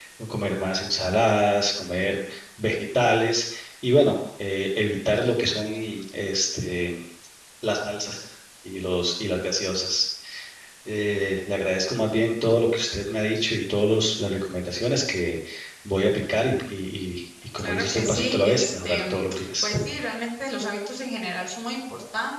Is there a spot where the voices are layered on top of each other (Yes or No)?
Yes